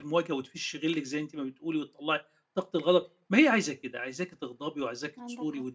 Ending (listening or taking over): listening